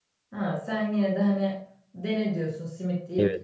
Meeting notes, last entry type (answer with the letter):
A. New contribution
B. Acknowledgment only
A